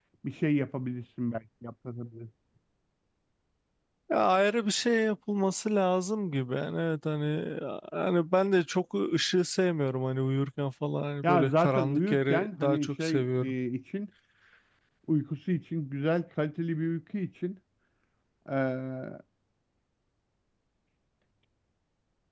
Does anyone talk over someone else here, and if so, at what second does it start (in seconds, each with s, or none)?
11.2 s